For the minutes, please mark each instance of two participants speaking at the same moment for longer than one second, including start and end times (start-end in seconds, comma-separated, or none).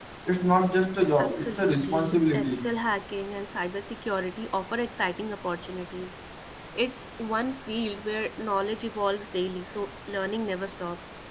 1.2-2.6